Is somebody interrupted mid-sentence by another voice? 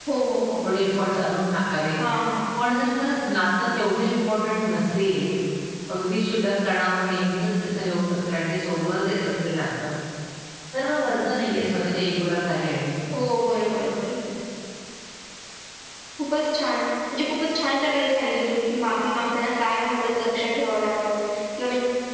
No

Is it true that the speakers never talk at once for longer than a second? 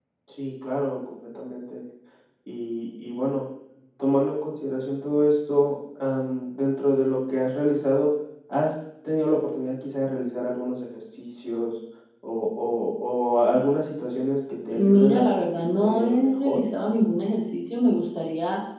No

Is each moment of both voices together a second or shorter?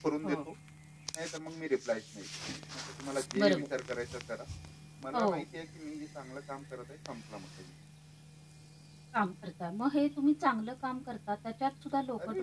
Yes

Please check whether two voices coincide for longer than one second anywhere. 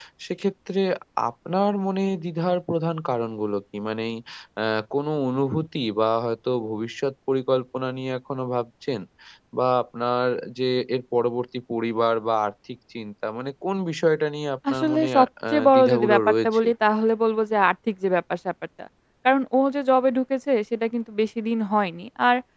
Yes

